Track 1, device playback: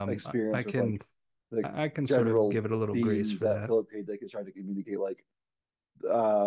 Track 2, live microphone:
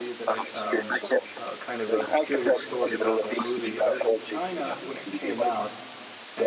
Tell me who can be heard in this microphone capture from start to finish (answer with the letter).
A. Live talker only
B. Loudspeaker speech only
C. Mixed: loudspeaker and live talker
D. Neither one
C